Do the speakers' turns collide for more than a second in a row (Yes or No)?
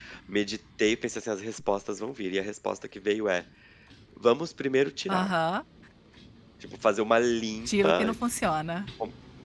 No